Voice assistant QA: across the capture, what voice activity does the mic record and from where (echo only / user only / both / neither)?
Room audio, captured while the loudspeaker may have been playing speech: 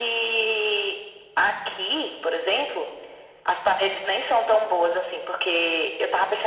echo only